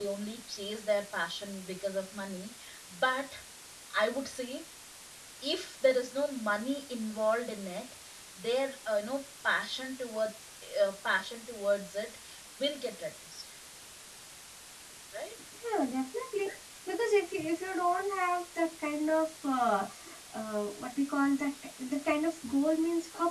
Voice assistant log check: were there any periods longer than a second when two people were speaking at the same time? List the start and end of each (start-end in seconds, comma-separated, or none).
none